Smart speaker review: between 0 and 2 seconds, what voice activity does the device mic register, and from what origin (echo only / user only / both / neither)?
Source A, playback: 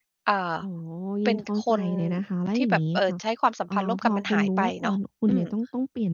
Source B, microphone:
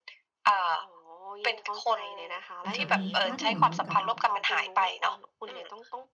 echo only